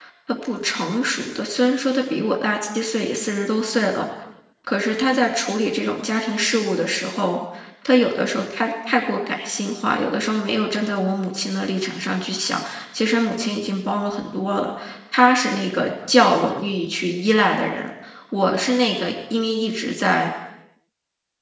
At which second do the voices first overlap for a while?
none

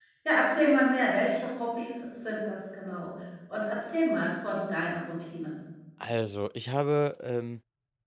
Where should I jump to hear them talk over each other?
none

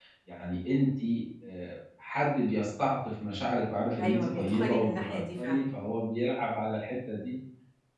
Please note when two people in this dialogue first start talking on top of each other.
4.0 s

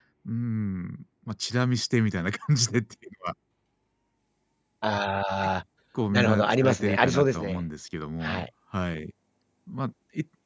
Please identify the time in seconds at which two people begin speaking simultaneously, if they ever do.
6.1 s

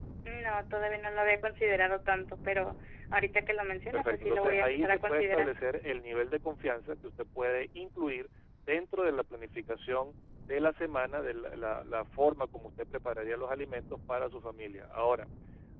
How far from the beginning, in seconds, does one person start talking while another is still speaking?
3.9 s

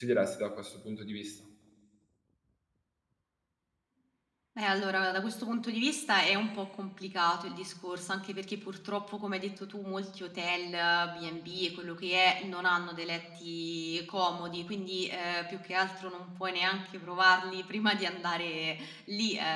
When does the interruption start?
none

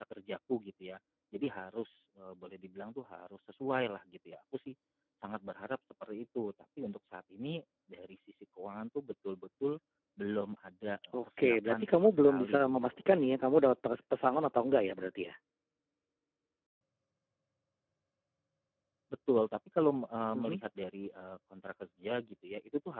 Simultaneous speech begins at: 11.1 s

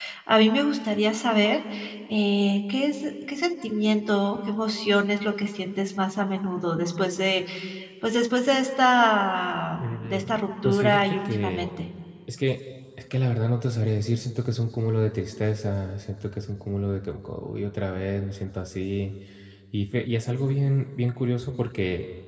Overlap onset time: 9.8 s

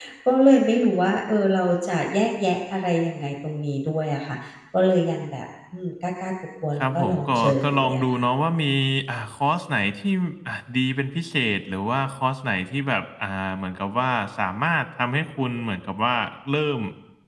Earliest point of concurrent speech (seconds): 6.8 s

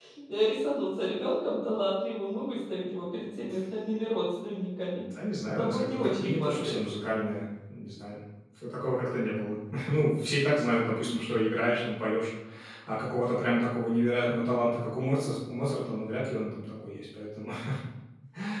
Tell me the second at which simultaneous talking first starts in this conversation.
5.6 s

